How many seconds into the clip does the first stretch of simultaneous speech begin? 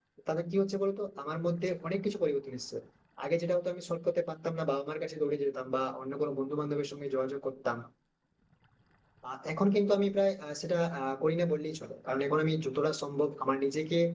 none

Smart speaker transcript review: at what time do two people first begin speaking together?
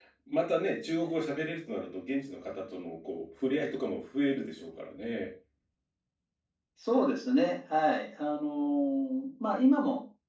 none

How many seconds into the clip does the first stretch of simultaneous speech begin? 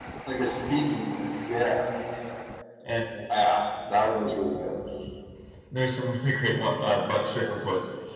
none

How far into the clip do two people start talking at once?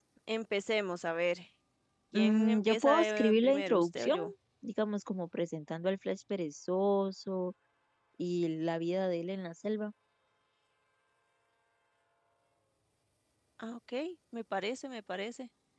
2.1 s

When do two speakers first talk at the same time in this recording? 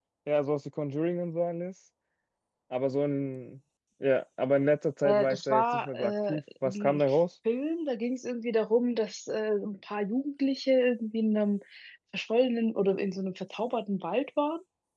5.0 s

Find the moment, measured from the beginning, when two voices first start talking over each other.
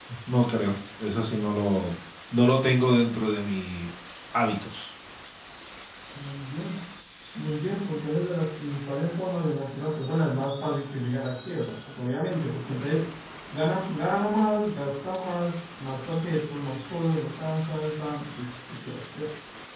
none

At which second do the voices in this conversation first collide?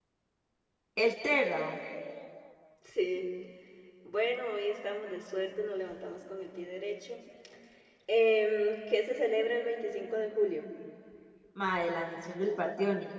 none

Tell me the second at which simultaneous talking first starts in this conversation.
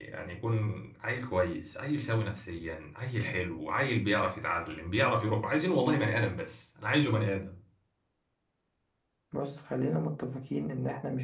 none

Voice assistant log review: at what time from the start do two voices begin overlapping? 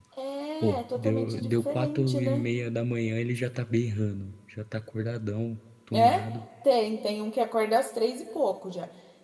0.6 s

